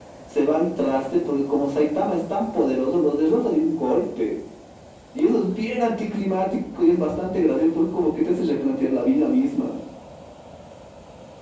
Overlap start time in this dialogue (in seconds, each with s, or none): none